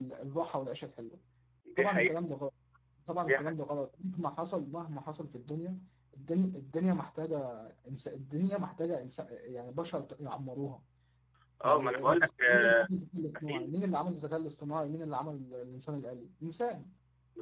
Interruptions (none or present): present